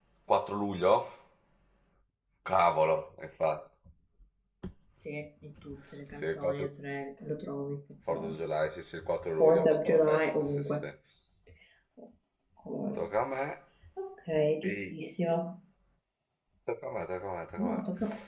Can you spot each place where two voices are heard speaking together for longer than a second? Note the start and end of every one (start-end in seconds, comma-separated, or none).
9.4-10.9